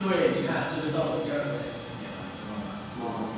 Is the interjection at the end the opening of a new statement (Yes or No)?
No